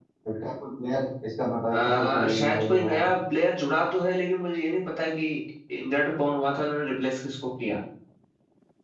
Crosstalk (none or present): present